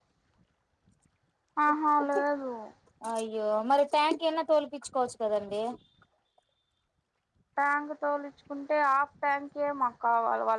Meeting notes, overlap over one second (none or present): none